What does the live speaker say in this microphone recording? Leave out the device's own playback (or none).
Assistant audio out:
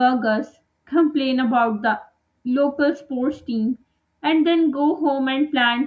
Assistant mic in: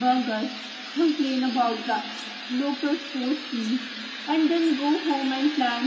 none